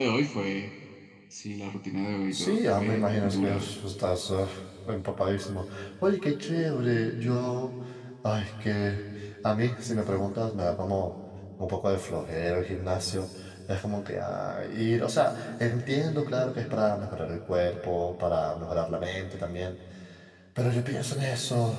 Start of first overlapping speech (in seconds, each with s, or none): 2.3 s